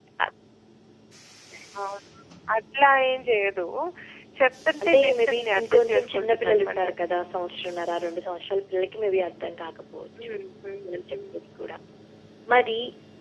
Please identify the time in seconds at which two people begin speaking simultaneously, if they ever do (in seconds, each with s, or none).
4.8 s